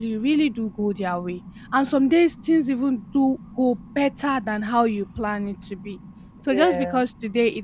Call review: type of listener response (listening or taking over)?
listening